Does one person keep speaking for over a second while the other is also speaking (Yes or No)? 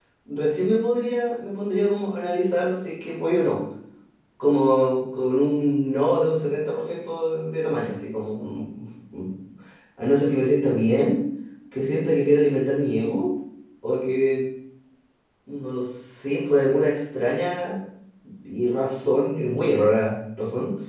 No